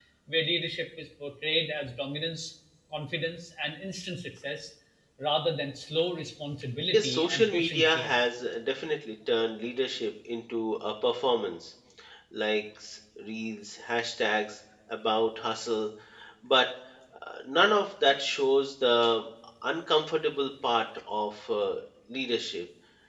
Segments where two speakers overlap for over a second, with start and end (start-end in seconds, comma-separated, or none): 6.9-8.2